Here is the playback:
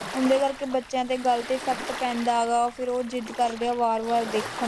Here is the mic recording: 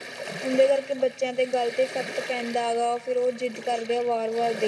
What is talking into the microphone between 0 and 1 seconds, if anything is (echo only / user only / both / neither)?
echo only